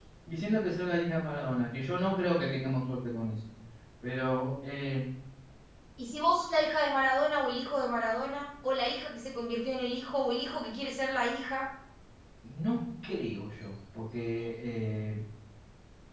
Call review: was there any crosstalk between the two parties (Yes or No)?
No